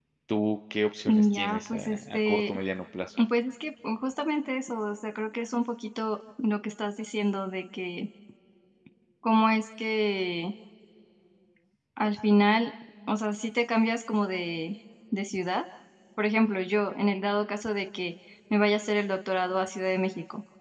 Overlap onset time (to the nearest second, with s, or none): 1 s